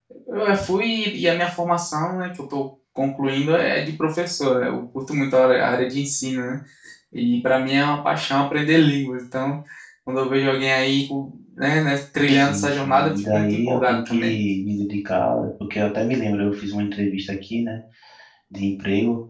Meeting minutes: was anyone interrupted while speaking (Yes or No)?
Yes